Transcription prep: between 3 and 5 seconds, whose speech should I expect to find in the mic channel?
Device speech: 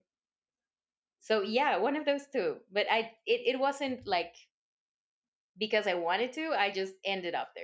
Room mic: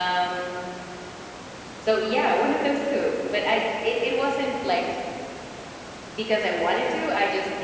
echo only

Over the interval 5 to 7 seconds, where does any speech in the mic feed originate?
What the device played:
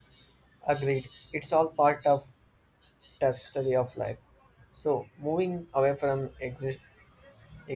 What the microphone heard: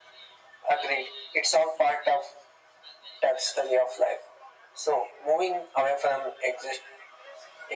echo only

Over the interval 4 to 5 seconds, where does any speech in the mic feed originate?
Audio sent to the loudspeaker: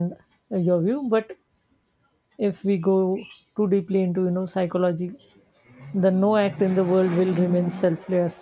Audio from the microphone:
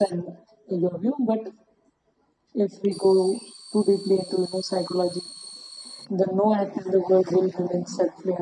echo only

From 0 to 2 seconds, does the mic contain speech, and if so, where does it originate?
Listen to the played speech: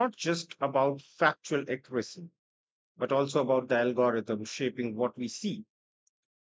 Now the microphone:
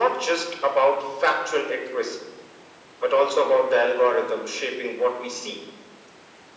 echo only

